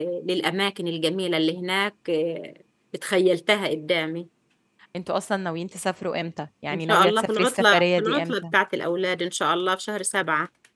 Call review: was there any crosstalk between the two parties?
Yes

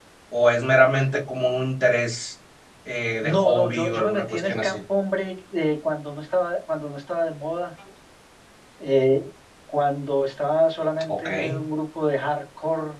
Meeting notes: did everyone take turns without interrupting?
No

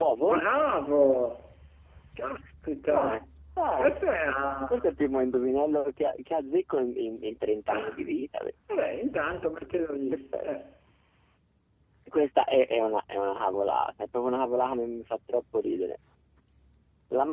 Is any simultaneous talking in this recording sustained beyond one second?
No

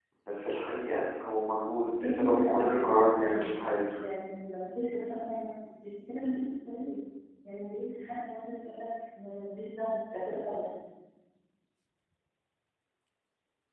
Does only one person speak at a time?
No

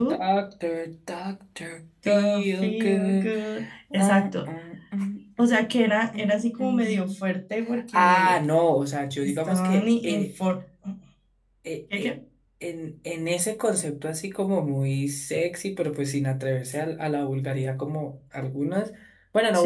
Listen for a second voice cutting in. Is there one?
Yes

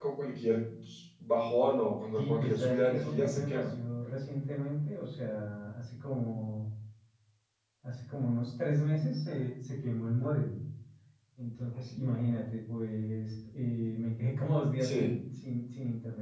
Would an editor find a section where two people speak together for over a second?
Yes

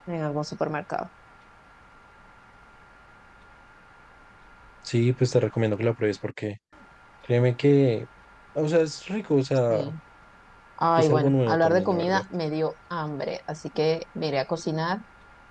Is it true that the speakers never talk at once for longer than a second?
No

